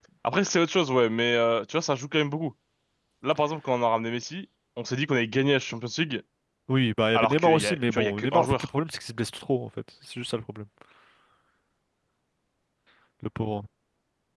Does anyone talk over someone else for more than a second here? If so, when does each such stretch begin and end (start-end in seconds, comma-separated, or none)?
7.2-8.5